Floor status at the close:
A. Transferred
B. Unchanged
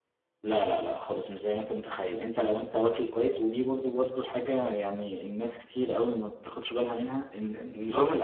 B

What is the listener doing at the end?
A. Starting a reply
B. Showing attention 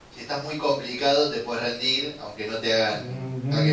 A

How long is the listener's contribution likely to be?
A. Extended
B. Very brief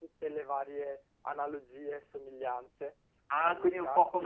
A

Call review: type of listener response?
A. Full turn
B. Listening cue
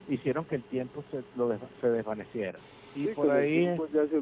A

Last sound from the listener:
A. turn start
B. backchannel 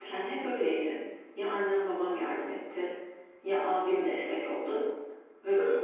B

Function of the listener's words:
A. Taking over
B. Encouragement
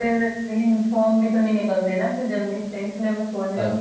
B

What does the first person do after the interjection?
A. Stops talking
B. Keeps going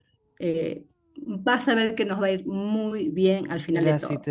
A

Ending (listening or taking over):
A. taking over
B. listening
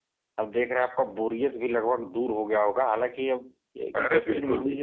B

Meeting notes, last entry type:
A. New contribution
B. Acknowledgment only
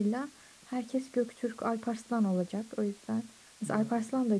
B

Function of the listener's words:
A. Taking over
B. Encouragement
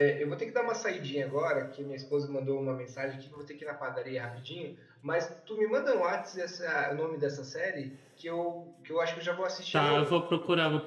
A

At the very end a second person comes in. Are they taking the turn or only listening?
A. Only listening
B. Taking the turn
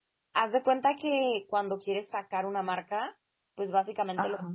A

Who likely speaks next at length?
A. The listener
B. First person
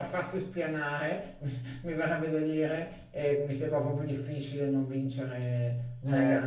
A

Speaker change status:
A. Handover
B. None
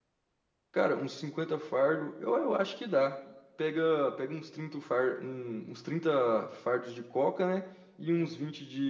B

